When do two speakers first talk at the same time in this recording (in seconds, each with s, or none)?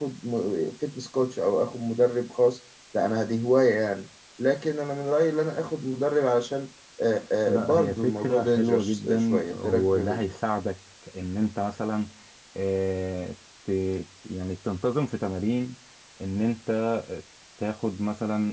7.5 s